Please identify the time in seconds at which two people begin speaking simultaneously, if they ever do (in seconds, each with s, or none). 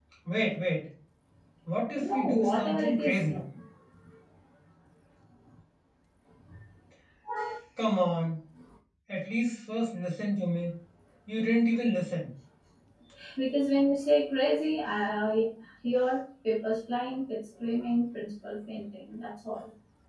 2.0 s